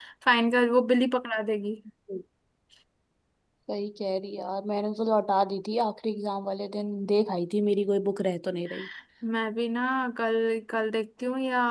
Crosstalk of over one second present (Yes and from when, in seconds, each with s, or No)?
No